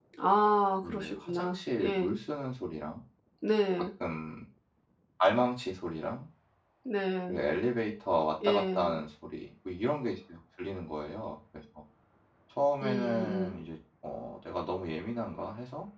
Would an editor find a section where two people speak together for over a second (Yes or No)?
Yes